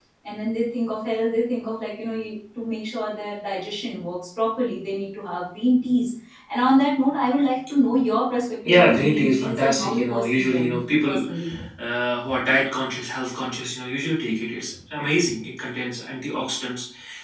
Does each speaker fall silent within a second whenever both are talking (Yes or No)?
No